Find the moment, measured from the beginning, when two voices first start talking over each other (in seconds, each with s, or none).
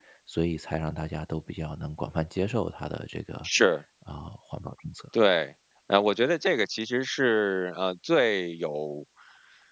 none